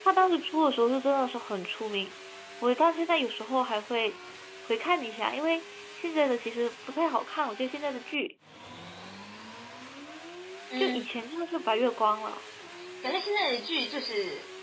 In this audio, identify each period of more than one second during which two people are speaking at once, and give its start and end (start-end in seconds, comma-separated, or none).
none